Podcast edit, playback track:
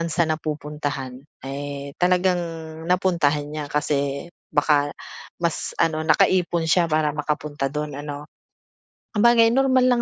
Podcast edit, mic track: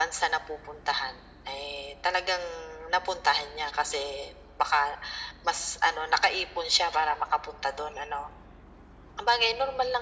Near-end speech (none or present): none